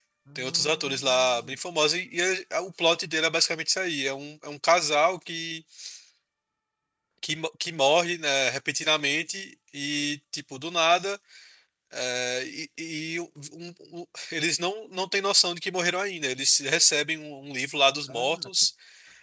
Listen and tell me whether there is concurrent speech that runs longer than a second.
Yes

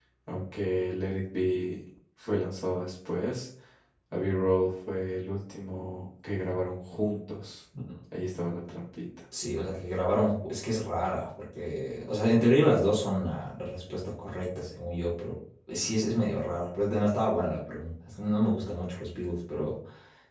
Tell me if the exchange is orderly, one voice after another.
Yes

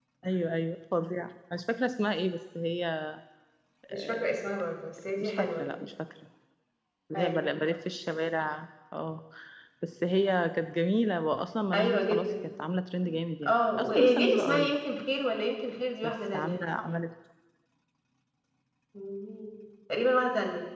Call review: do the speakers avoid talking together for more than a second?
No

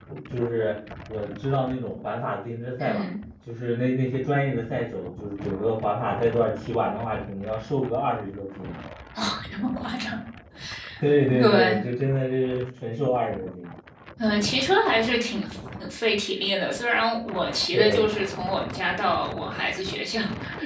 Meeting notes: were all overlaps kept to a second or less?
Yes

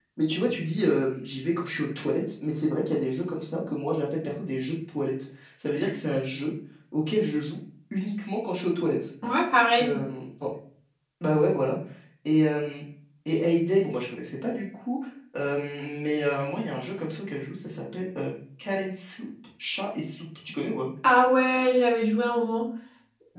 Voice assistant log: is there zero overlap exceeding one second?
Yes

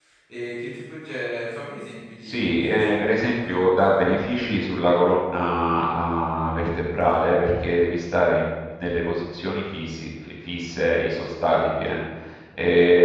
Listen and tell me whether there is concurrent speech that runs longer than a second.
Yes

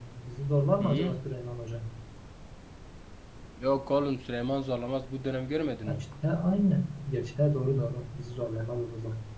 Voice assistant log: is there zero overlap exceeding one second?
Yes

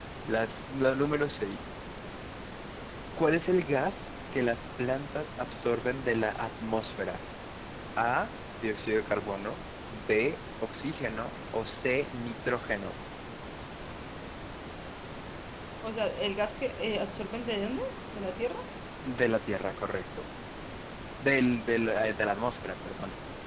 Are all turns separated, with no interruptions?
Yes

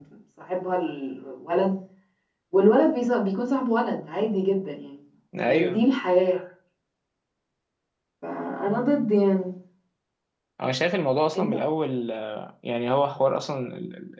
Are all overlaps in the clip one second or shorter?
Yes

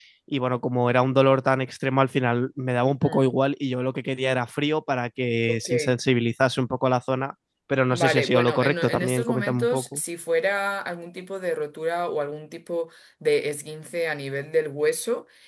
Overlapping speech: Yes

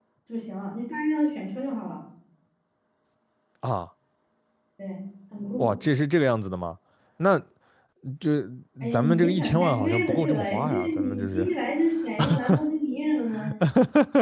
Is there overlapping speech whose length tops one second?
Yes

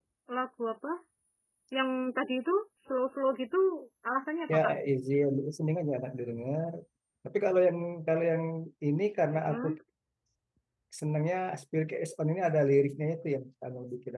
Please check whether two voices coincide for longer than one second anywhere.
No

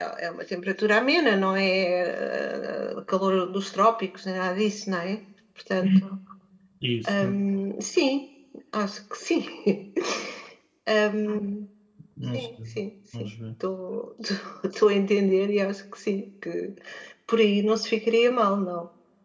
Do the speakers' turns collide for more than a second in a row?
No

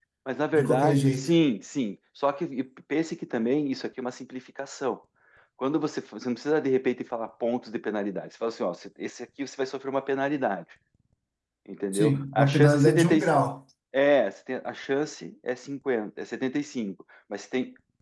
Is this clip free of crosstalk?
No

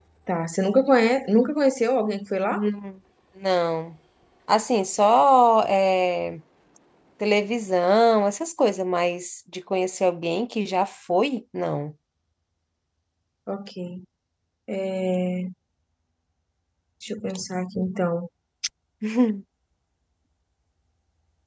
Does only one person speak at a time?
Yes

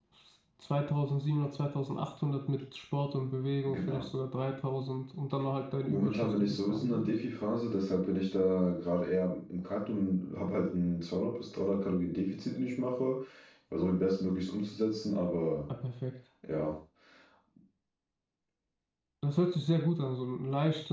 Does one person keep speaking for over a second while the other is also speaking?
Yes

